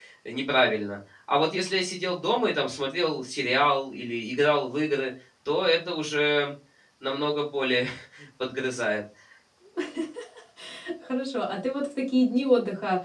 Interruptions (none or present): none